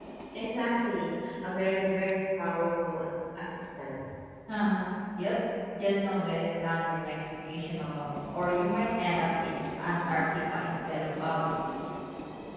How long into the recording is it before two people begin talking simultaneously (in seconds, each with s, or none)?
none